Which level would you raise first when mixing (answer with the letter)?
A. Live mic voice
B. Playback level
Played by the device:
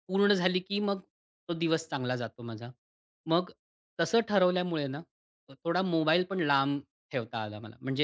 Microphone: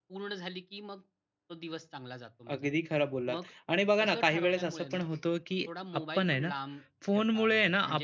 B